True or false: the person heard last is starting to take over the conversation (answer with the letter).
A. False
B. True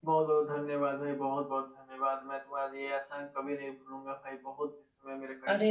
B